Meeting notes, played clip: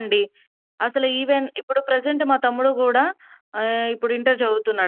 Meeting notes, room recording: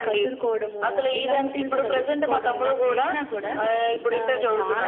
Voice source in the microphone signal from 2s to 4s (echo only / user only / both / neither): both